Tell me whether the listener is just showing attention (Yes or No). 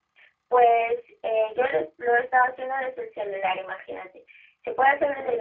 Yes